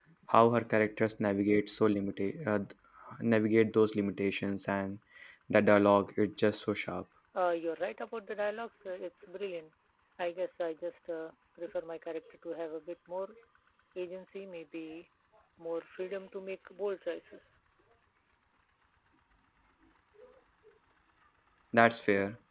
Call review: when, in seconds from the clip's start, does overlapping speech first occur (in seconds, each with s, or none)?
none